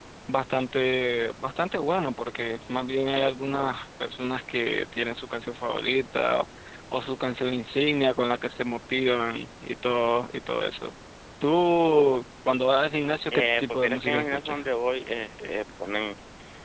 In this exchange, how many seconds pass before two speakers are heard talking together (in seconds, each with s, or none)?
13.3 s